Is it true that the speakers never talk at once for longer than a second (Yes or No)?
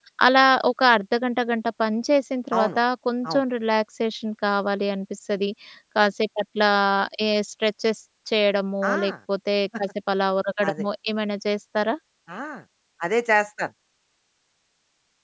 Yes